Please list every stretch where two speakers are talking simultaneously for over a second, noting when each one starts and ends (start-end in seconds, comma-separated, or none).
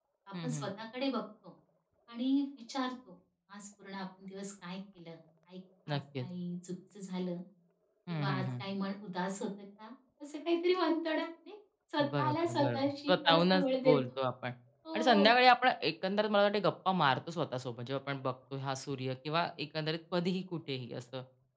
12.0-14.0